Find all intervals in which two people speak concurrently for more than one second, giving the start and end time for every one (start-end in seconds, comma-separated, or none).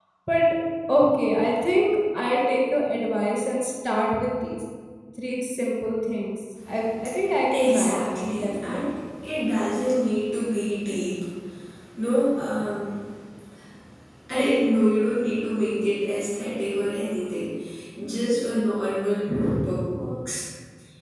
7.5-8.8